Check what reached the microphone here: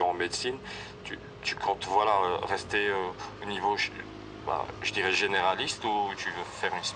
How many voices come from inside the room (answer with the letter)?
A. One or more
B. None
B